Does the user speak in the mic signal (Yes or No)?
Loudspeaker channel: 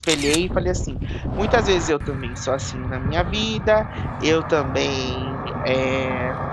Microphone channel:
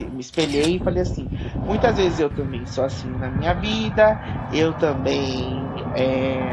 No